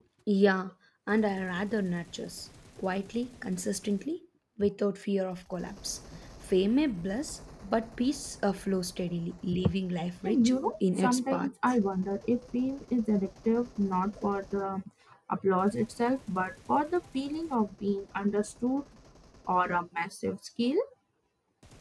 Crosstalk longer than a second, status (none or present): present